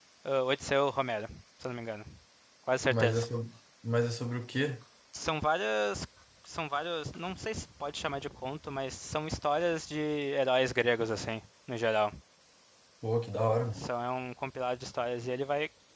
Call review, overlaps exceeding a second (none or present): none